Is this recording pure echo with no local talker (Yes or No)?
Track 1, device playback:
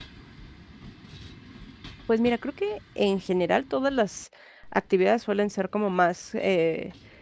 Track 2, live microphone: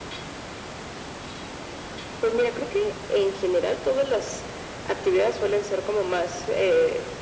Yes